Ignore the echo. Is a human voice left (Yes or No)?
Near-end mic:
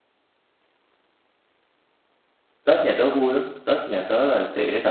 Yes